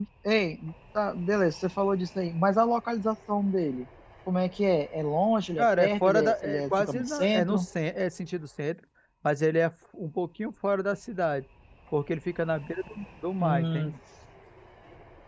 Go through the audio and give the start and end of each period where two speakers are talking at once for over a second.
5.6-7.7

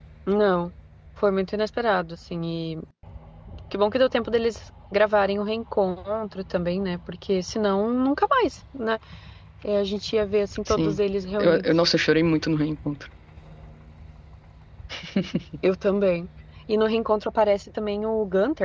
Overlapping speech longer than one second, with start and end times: none

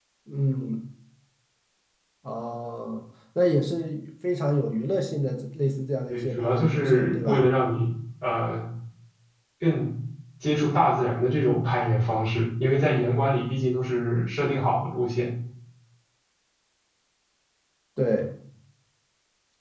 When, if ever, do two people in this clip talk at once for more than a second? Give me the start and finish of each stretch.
6.1-7.5

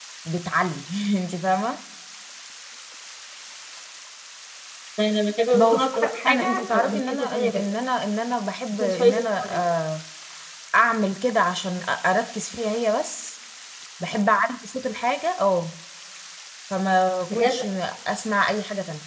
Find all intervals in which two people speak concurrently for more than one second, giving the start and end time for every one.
5.5-7.6

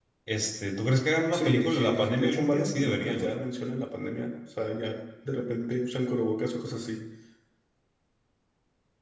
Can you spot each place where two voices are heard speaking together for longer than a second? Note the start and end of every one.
1.3-3.4

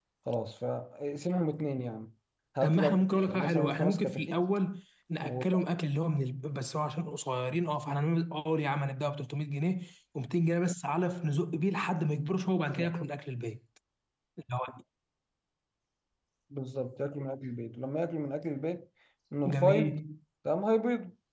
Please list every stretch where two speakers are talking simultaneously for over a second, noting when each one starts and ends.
2.6-4.4

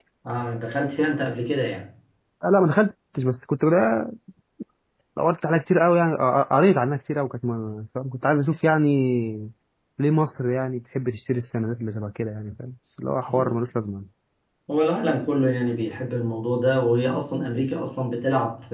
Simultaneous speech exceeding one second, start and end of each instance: none

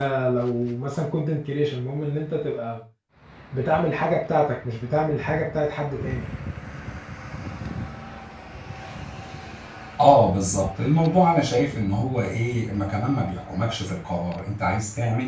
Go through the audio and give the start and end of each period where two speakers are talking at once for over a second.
none

